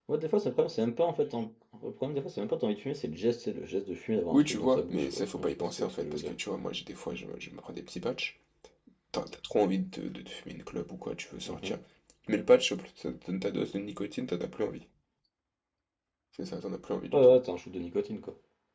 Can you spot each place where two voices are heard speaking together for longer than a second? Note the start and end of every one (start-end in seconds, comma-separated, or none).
4.3-6.3